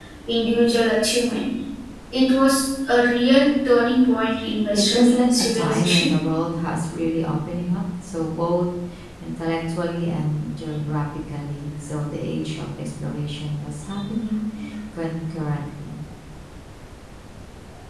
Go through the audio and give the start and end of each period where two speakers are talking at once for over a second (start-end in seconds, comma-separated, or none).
4.7-6.1